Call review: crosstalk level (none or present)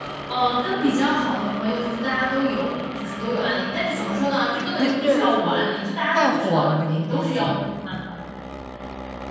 present